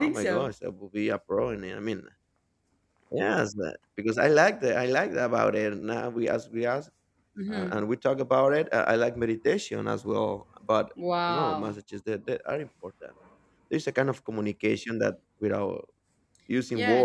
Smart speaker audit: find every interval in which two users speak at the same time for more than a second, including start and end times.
none

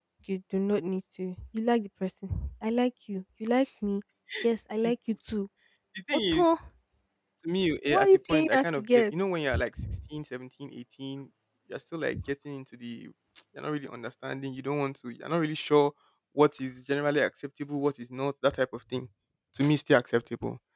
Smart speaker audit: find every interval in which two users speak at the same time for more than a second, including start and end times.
7.9-9.1

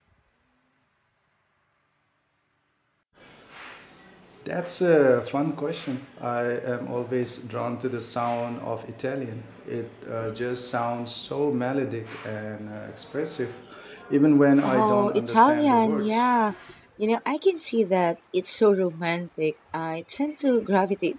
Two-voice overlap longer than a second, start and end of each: 14.6-16.3

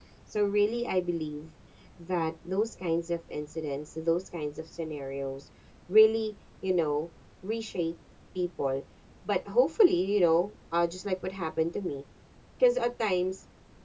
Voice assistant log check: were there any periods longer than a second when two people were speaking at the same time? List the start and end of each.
none

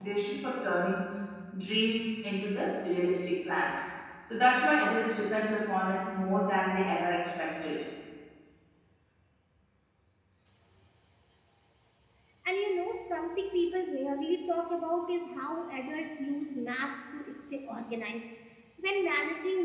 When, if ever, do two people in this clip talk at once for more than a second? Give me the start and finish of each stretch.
none

